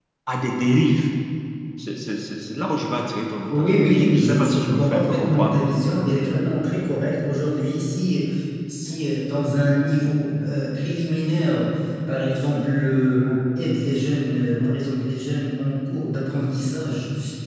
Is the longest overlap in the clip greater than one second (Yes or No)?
Yes